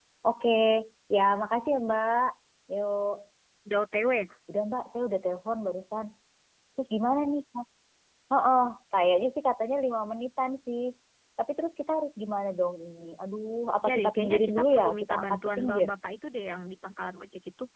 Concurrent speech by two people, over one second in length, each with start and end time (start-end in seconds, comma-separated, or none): 13.8-15.9